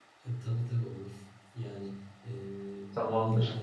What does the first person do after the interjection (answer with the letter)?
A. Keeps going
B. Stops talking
A